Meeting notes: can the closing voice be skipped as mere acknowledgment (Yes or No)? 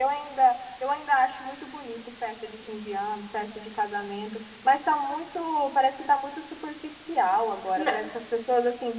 Yes